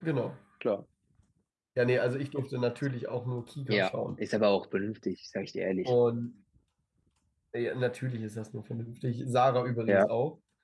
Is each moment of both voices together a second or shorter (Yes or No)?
Yes